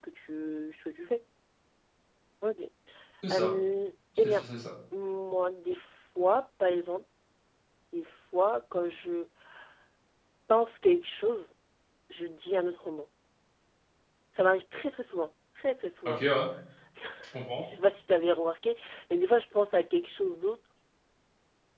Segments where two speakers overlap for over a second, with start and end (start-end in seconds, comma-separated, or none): none